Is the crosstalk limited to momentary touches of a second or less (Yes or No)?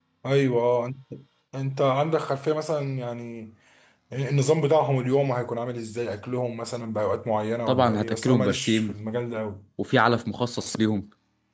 No